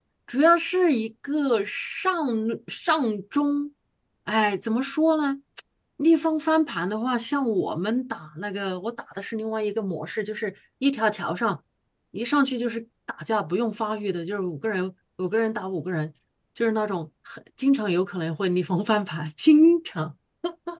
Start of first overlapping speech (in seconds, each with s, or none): none